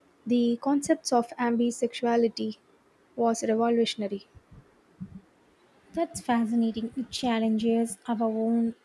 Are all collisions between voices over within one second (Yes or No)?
Yes